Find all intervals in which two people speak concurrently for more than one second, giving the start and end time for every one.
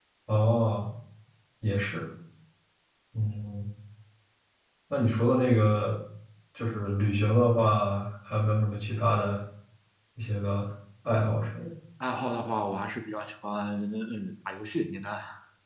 none

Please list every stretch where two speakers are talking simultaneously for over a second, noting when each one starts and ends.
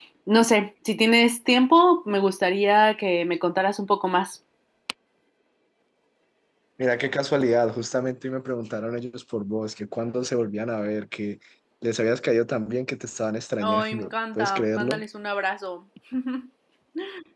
13.6-15.0

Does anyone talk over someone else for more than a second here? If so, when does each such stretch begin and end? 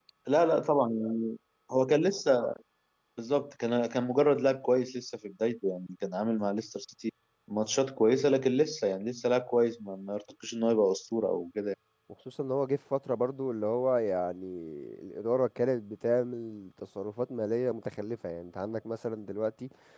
none

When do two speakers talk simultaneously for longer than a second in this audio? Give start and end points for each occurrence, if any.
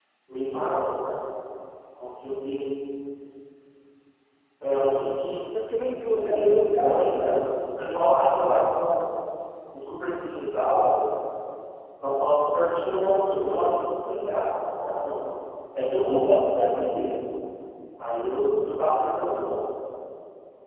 6.1-7.4

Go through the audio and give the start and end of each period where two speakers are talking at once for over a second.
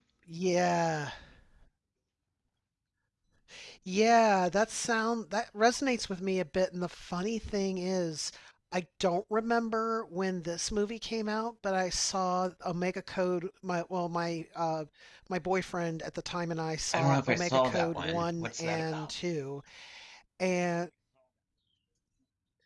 16.9-19.1

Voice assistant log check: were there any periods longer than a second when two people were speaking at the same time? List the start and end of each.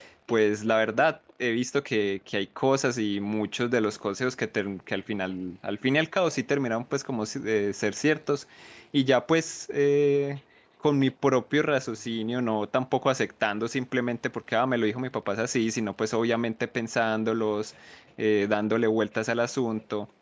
none

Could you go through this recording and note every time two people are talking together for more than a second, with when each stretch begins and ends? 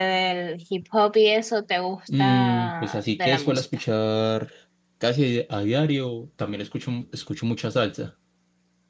2.2-3.7

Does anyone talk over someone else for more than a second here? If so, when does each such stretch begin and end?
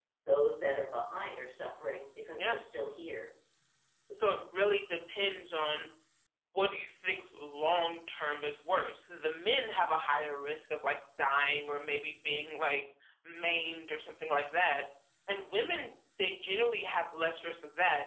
none

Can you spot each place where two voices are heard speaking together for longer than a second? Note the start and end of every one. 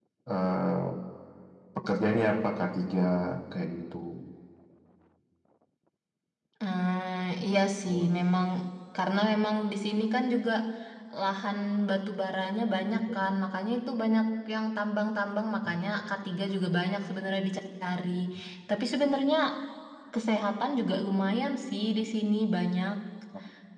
none

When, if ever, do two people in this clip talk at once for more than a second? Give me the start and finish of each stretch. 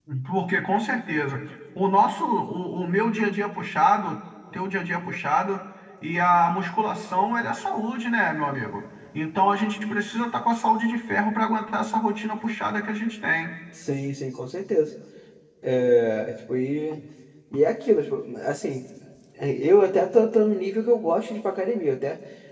none

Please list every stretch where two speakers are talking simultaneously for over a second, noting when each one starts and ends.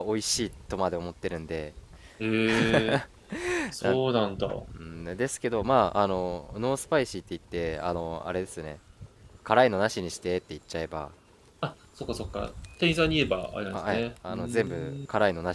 13.7-15.0

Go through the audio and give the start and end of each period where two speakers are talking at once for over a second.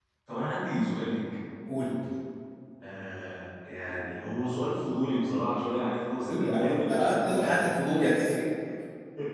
6.2-7.7

